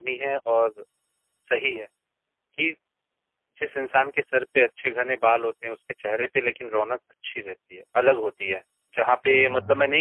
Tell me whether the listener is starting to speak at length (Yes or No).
No